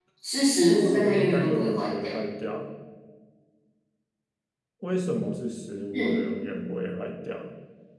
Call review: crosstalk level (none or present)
present